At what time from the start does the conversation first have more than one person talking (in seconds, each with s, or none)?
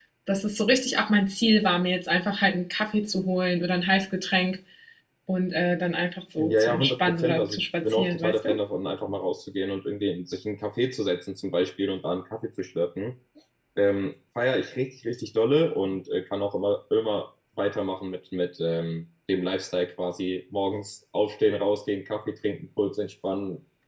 6.4 s